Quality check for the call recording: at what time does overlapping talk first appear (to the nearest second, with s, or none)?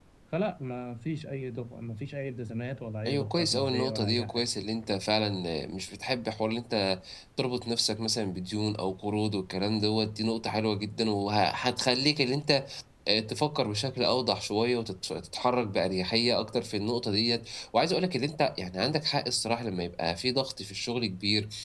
3 s